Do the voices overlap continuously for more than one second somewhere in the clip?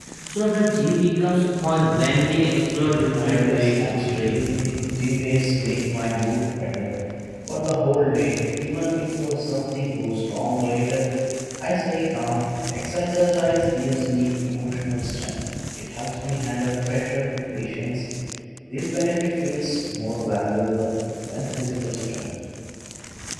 Yes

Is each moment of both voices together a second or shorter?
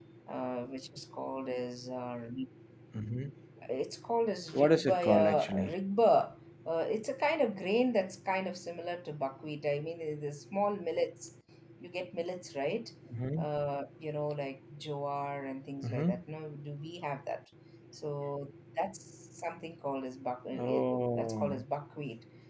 No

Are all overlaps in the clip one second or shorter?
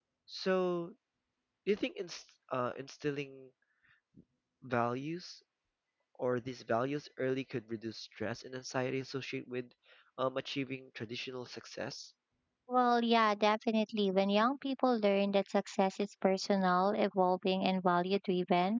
Yes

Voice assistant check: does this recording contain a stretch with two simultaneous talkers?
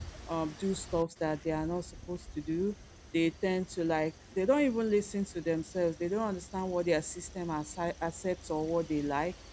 No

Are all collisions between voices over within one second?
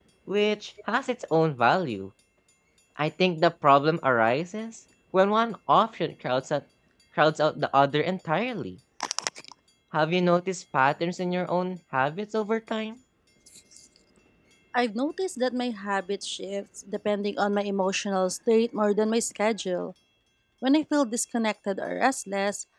Yes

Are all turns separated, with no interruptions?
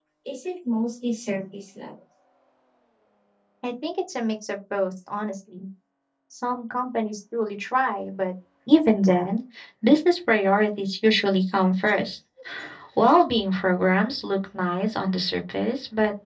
Yes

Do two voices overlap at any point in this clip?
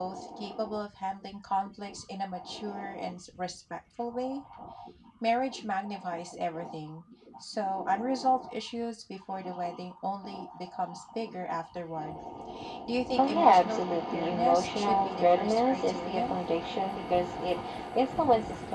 Yes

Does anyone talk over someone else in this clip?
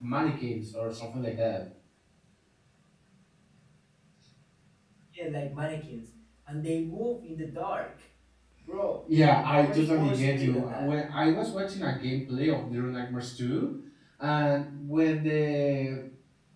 Yes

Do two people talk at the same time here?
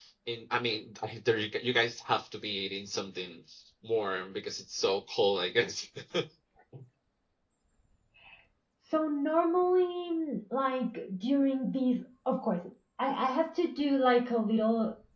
No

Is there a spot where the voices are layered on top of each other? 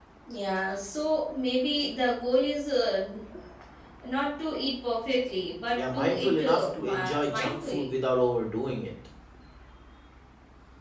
Yes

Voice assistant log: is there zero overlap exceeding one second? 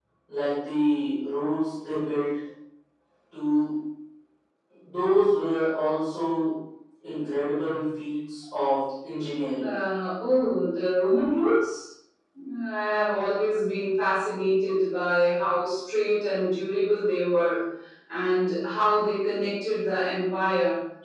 Yes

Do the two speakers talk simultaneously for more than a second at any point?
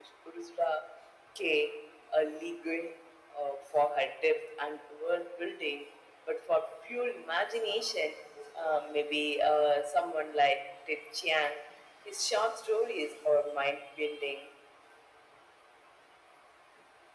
No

